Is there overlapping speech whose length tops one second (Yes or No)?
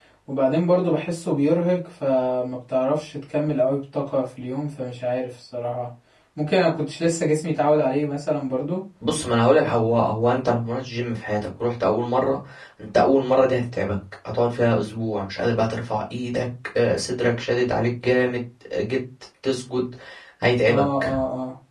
No